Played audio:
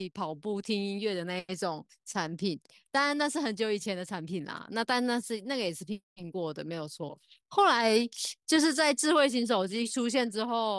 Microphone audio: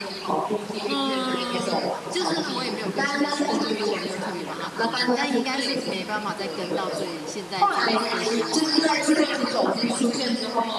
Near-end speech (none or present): present